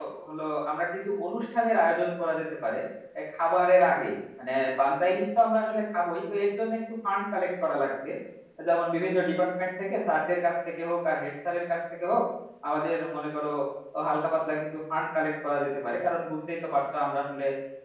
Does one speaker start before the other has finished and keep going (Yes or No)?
No